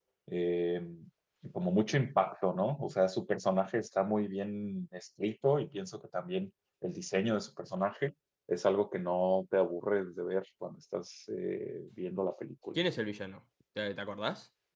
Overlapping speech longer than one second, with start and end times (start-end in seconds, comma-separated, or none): none